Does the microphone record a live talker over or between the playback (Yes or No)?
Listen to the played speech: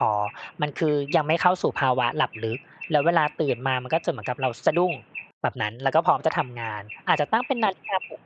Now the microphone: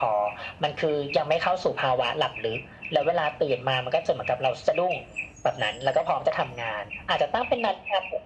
No